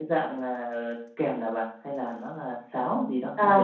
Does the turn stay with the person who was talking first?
No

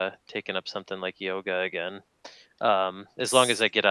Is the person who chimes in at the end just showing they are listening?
Yes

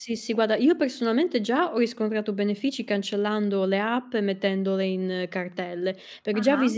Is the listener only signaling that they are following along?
Yes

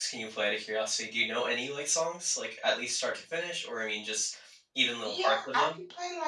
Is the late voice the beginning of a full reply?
Yes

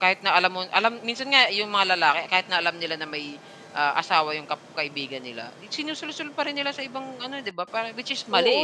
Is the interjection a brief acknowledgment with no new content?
No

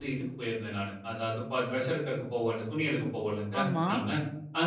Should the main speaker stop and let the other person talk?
No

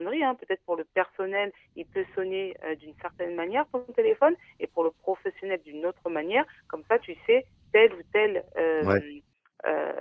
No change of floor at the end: Yes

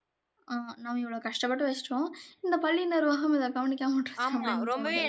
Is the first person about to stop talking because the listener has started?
Yes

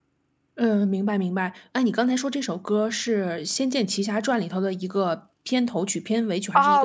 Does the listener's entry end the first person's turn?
Yes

